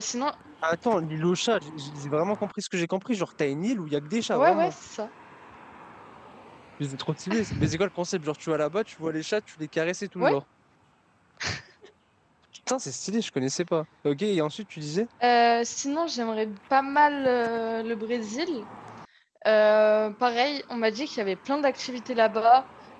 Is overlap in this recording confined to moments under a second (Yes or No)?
Yes